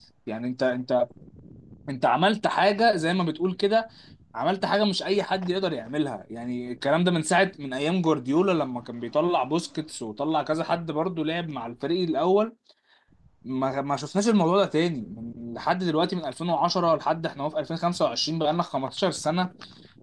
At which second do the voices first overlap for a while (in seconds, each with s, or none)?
none